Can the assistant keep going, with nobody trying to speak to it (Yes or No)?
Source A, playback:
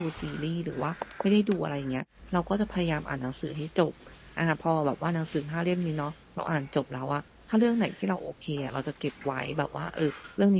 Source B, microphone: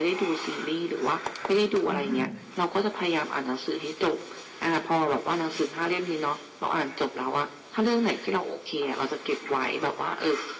No